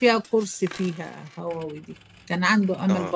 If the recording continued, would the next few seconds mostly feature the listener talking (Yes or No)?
No